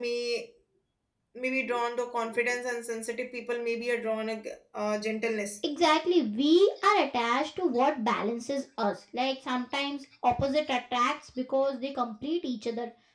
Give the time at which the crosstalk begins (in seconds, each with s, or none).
none